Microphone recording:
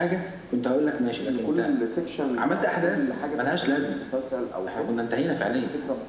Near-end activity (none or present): none